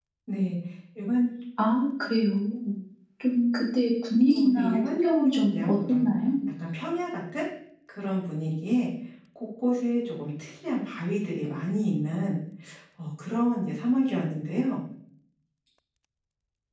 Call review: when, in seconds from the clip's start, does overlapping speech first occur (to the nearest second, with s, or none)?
4 s